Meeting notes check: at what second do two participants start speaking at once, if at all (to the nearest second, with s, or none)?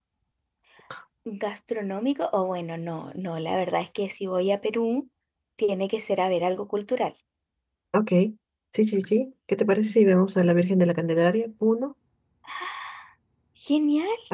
none